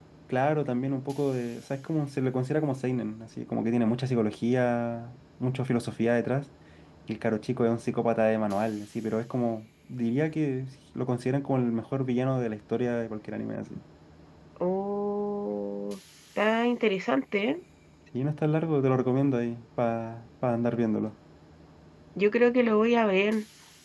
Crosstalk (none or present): none